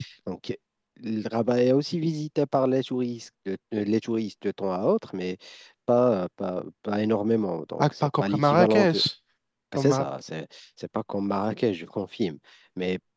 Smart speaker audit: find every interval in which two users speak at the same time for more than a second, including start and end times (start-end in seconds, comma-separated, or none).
7.8-9.0